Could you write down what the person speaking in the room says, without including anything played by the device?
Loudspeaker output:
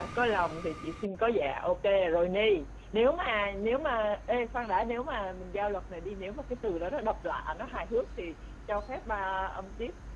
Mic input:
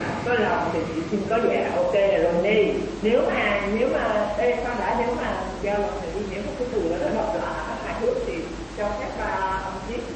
none

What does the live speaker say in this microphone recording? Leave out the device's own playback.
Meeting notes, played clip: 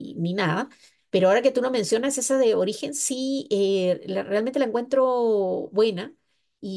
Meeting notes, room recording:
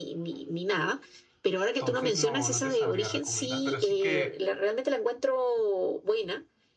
entonces no, no te sabría recomendar, pero sí que

